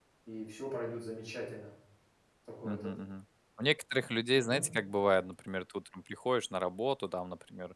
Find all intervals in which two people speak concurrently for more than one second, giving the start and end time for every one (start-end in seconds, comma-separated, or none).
none